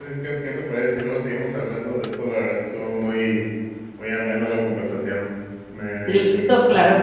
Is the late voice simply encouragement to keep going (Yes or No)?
No